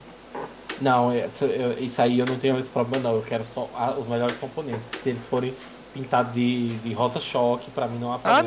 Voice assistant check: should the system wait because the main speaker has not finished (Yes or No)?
No